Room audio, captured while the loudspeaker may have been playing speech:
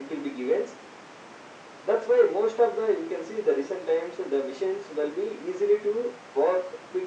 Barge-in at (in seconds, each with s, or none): none